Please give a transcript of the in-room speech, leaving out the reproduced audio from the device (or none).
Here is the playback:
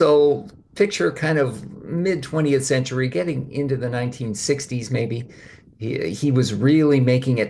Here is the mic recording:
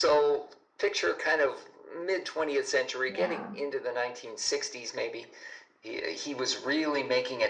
Yeah.